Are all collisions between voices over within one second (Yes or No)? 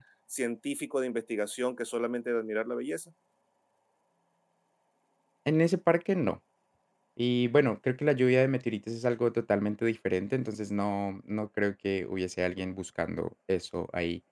Yes